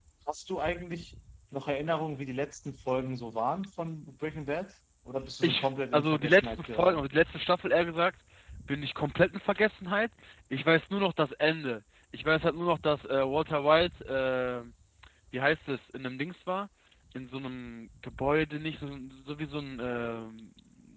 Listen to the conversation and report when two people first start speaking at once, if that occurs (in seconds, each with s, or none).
5.4 s